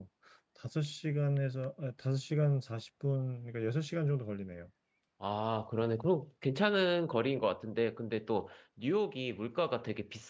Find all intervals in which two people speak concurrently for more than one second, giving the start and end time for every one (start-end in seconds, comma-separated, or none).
none